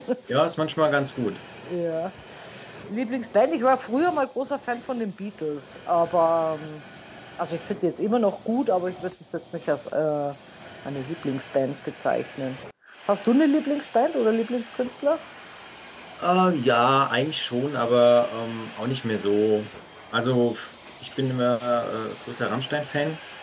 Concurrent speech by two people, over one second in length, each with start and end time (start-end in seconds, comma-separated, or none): none